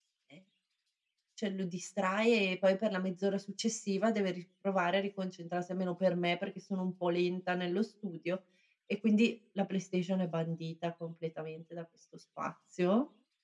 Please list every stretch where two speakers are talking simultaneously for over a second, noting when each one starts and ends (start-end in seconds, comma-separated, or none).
none